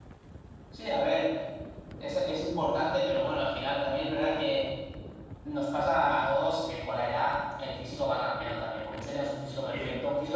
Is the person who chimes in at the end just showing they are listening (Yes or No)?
Yes